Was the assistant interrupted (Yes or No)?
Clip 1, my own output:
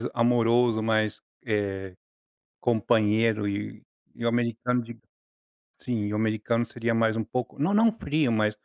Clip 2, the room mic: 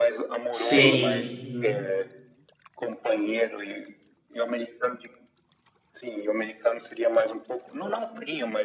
Yes